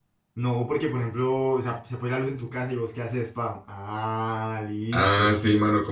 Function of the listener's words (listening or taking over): taking over